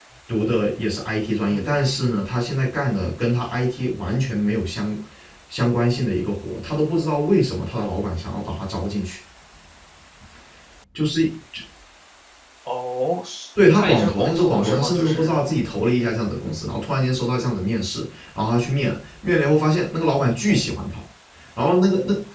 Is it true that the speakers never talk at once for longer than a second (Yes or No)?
No